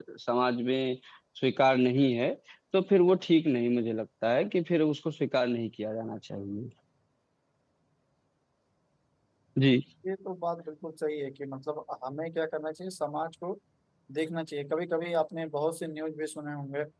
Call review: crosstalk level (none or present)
none